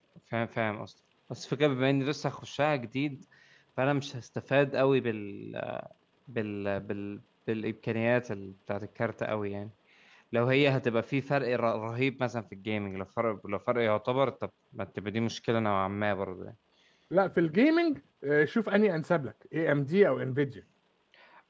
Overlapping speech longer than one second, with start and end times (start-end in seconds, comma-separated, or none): none